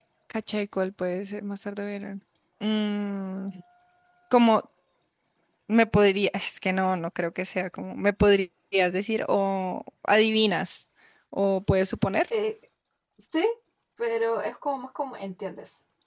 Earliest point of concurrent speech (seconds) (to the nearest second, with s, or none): none